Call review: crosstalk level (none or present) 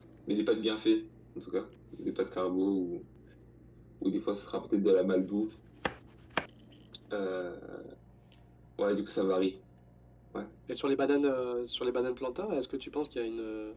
none